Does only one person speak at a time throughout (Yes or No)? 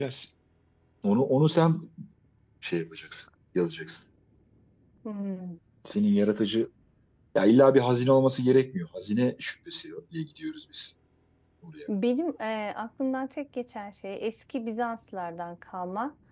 Yes